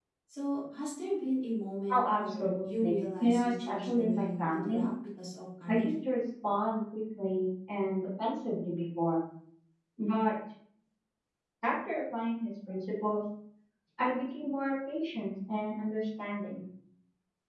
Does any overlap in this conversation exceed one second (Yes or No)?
Yes